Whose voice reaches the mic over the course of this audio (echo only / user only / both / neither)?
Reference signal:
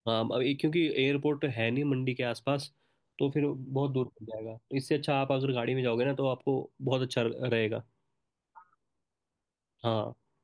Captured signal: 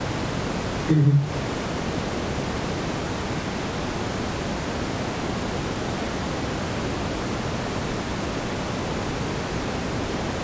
user only